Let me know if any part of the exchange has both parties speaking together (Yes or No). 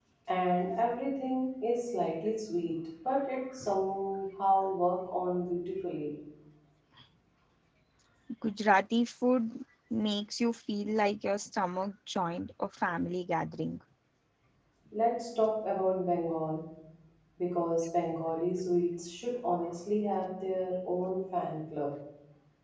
No